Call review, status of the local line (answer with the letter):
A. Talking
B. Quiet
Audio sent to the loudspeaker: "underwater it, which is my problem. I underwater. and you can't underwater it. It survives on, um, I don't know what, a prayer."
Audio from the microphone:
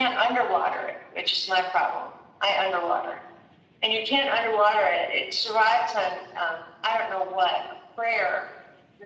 B